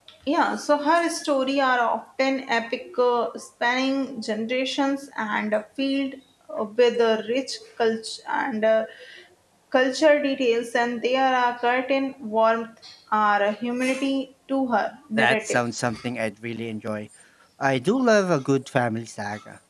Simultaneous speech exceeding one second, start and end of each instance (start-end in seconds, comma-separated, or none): none